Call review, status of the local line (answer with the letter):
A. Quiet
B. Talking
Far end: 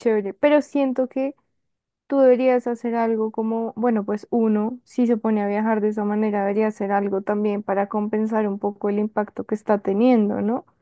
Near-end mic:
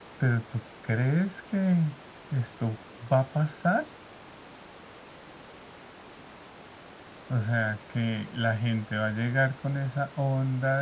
B